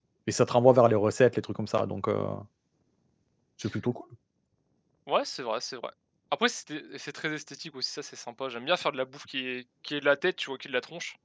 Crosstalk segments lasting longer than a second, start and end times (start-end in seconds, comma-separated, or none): none